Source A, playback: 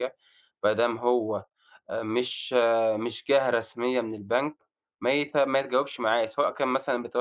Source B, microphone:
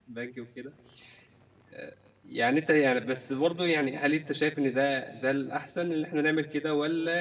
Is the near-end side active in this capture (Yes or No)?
Yes